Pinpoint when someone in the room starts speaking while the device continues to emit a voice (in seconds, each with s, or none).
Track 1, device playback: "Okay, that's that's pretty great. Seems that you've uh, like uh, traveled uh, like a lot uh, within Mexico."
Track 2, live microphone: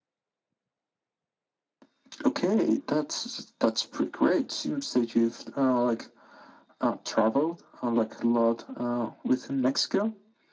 none